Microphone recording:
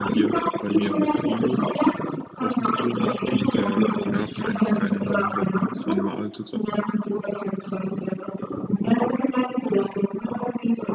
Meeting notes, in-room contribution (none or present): present